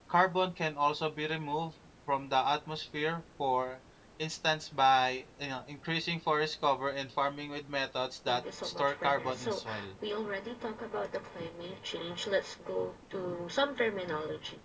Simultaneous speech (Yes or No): Yes